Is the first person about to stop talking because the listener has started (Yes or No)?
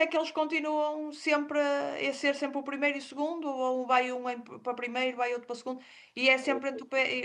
No